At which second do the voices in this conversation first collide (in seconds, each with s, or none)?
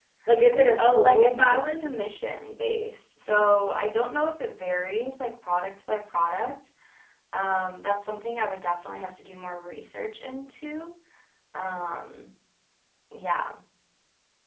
0.5 s